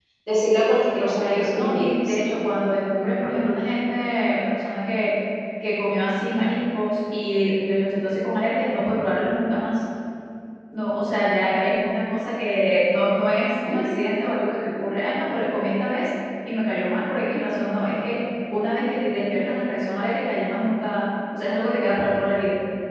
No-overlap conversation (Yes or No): No